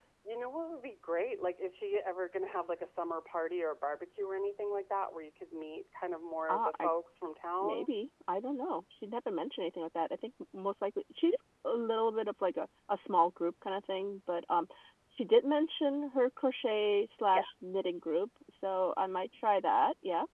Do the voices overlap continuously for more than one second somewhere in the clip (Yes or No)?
No